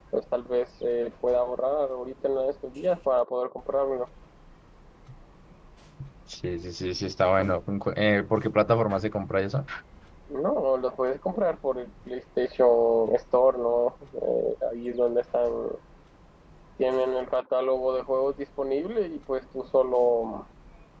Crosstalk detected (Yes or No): No